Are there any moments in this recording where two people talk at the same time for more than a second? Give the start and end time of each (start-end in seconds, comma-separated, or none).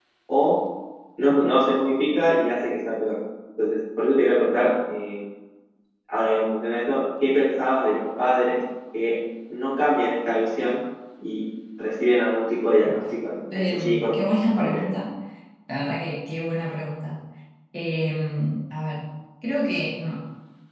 13.5-14.8